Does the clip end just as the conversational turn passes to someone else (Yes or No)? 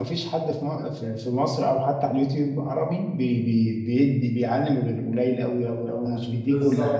Yes